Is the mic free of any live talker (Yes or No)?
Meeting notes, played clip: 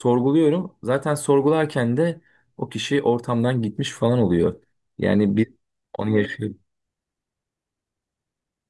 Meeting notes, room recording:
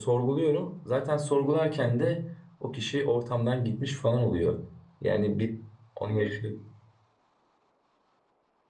Yes